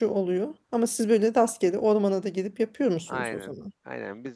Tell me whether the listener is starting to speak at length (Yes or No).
Yes